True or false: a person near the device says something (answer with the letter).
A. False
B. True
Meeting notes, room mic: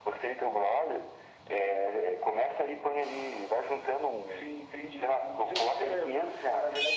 A